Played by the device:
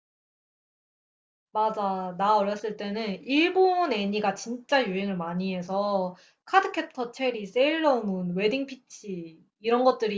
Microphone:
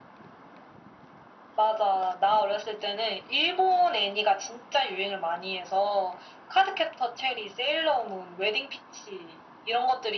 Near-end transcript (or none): none